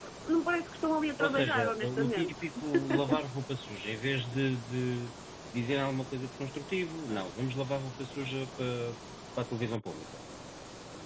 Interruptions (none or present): present